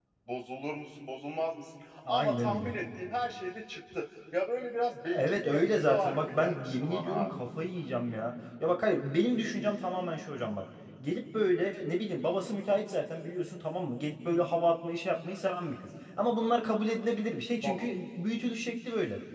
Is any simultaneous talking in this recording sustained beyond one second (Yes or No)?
Yes